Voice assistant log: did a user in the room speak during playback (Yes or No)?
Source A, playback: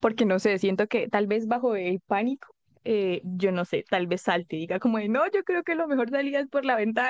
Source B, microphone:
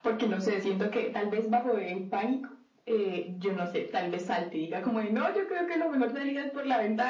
No